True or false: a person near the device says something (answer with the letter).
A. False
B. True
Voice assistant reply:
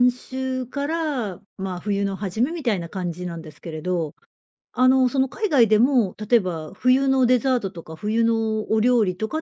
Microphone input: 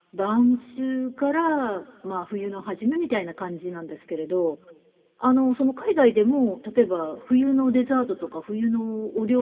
A